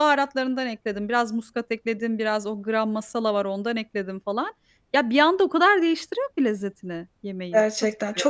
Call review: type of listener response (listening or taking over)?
taking over